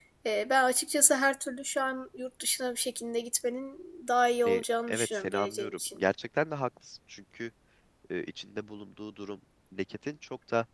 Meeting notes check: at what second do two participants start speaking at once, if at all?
4.5 s

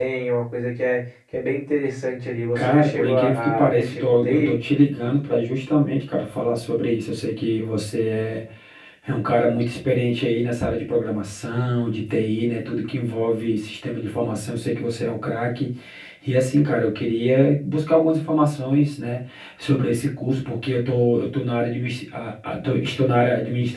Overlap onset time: 2.5 s

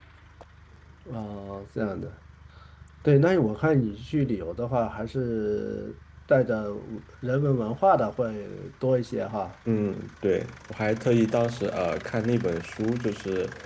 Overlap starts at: none

